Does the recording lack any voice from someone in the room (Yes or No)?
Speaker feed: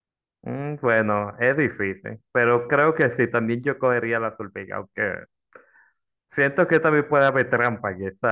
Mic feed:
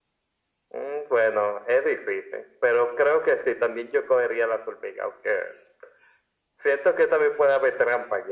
Yes